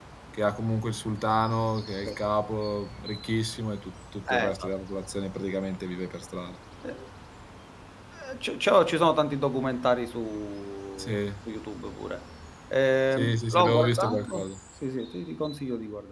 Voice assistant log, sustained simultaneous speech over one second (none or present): present